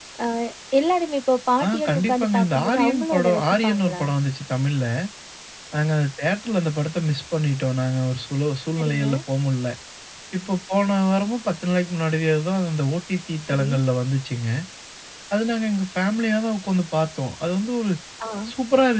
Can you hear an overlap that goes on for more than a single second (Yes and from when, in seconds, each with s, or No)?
Yes, from 1.6 s